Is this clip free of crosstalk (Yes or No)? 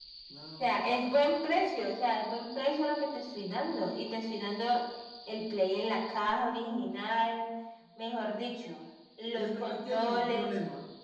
No